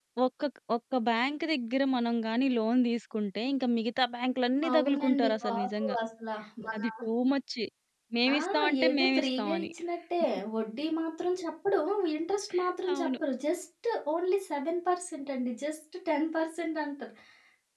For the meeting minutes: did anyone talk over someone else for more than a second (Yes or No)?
Yes